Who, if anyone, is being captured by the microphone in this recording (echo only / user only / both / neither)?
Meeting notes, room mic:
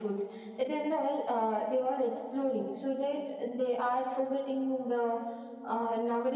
echo only